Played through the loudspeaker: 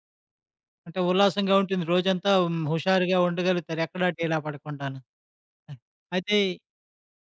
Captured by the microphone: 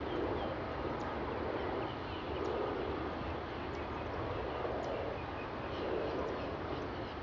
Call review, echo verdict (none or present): none